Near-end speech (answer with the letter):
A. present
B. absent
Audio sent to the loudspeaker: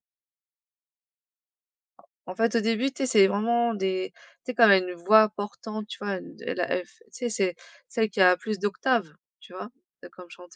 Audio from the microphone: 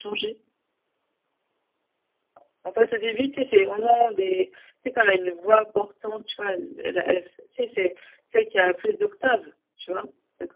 B